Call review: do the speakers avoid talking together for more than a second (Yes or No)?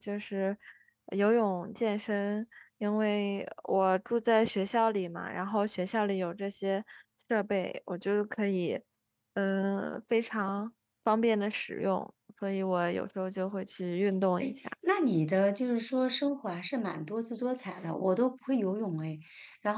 Yes